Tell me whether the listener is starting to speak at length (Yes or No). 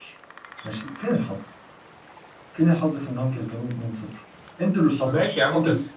Yes